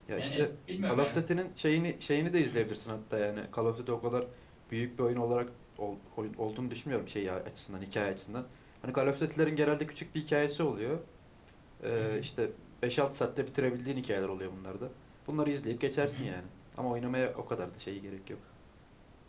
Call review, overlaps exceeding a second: none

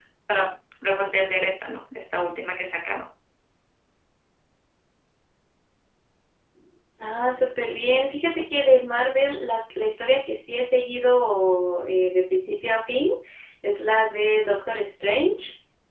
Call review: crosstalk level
none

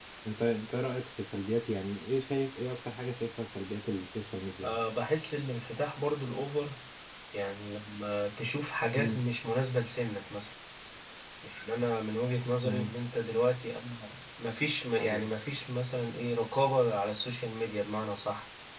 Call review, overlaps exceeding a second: none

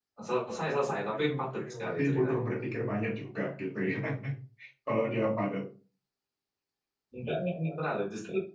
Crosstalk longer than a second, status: present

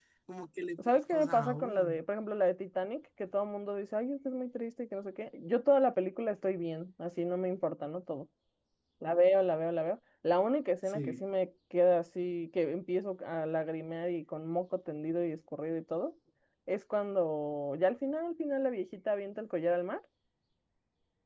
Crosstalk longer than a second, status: present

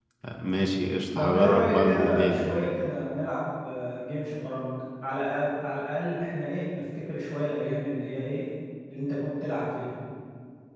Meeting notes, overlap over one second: present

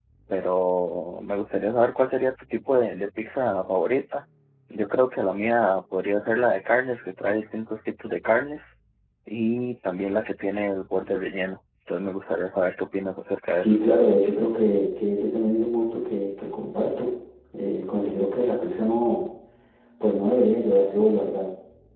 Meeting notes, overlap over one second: none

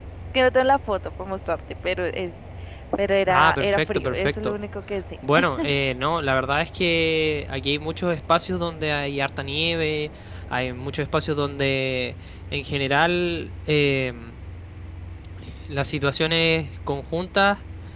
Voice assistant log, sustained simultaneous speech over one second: present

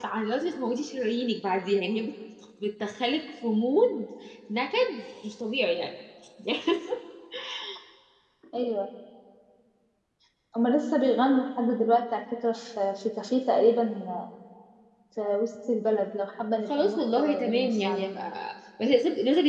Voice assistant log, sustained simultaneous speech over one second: present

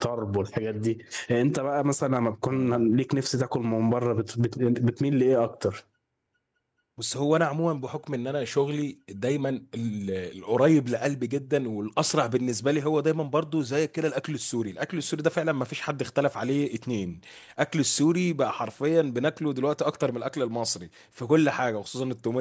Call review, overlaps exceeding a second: none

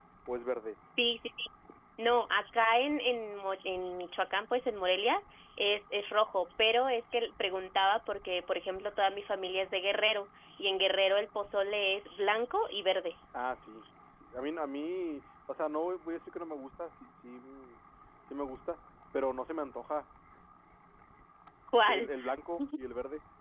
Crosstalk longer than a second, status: none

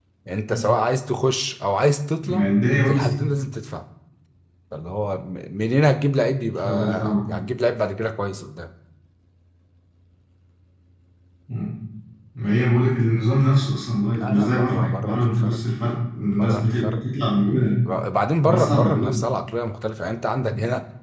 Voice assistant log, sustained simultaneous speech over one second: present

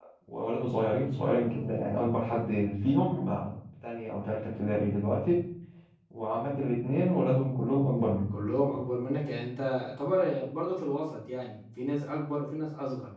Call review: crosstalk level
none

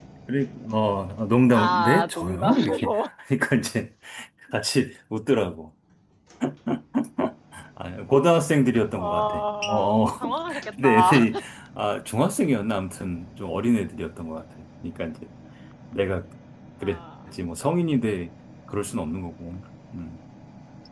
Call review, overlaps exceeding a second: present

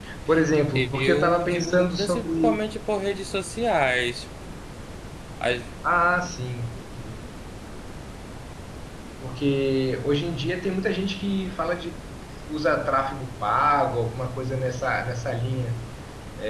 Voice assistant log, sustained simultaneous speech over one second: present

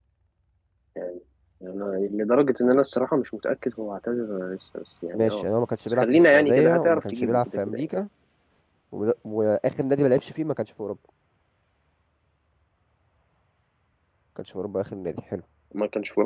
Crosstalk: present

